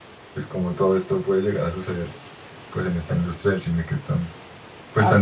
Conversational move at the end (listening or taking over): taking over